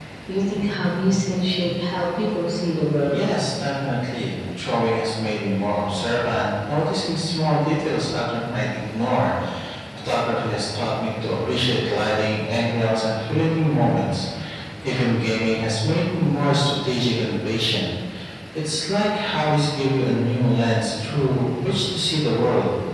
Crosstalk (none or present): none